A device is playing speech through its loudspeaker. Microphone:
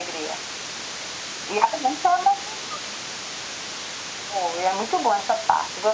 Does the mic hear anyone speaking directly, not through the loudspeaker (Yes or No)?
No